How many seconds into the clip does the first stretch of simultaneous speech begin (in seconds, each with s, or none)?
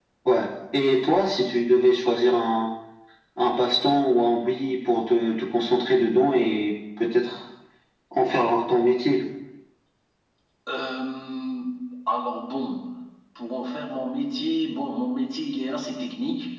none